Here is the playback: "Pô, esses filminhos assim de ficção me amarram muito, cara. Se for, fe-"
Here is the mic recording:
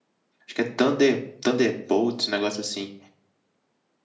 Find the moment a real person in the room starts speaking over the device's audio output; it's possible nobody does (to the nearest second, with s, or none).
0 s